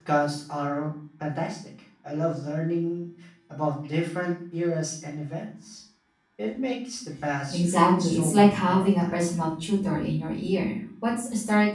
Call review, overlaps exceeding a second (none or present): present